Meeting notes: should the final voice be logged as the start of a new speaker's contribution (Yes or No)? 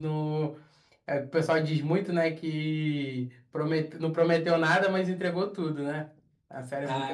Yes